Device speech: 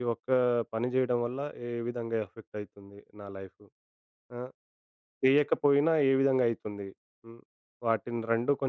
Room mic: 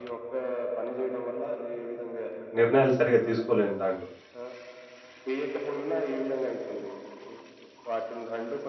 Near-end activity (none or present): present